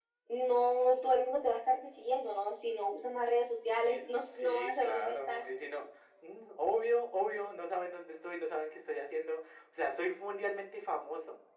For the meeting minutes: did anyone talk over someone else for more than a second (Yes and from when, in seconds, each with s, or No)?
Yes, from 3.8 s